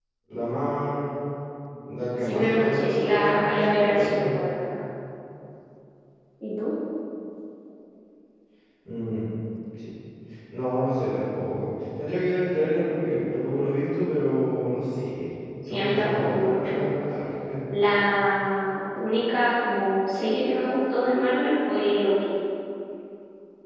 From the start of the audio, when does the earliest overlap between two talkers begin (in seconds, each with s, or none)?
2.2 s